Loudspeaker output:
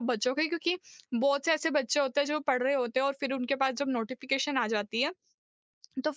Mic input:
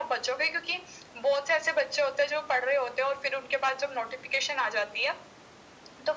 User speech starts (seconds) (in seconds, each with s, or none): none